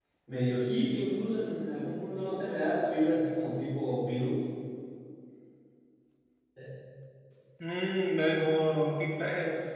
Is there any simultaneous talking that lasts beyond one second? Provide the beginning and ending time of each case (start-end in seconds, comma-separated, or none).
none